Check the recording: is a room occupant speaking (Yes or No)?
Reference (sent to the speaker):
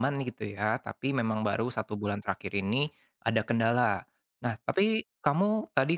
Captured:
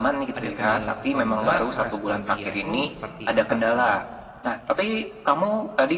Yes